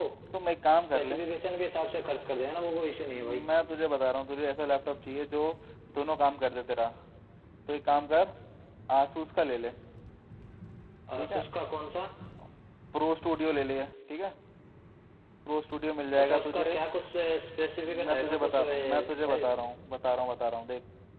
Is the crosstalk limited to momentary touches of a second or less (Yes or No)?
No